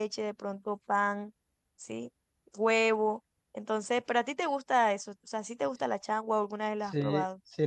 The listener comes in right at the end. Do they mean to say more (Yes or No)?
Yes